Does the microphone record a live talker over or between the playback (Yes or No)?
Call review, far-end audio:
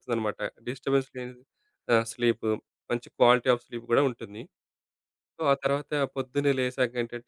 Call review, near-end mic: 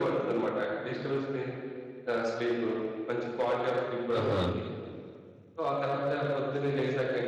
Yes